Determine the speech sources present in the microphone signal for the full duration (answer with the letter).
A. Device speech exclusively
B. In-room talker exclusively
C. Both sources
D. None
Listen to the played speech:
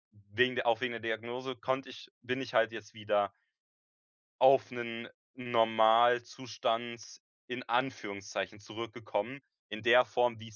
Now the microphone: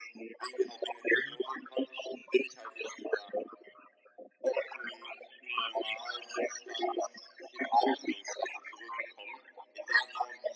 C